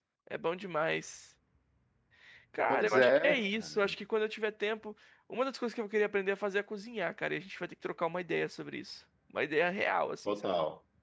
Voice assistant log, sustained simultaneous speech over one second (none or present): present